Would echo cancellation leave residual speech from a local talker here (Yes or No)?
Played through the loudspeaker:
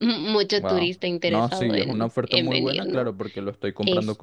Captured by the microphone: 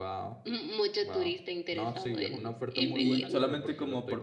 Yes